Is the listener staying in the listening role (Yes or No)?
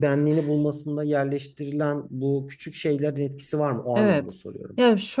No